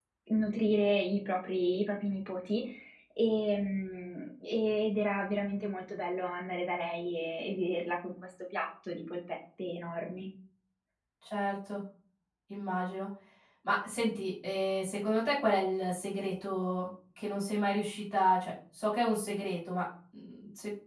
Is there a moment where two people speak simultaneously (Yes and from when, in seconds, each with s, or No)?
No